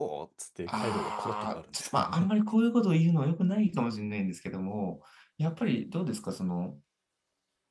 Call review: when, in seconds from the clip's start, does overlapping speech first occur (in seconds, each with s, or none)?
0.7 s